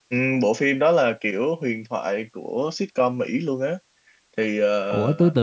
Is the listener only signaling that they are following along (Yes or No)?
No